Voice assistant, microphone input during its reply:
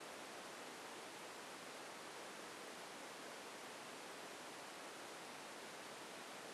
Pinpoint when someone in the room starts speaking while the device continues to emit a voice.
none

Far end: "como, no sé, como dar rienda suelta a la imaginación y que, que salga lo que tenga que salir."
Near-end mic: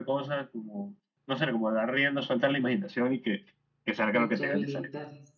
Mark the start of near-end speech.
4.1 s

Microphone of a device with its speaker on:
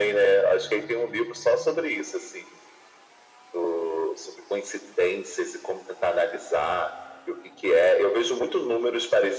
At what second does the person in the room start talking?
none

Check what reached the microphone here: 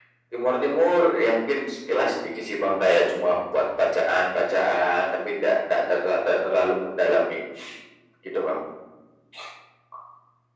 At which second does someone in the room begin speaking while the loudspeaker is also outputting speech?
none

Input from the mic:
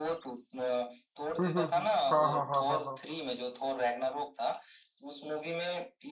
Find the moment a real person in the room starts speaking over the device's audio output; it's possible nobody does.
1.4 s

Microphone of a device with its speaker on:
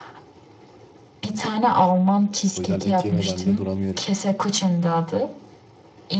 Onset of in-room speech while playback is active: 2.5 s

